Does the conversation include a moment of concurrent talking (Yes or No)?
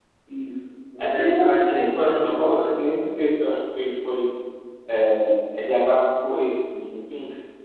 Yes